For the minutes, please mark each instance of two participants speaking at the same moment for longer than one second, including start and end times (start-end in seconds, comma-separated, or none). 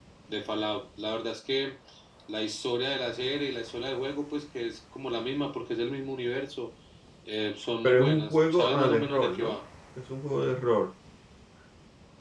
7.8-9.6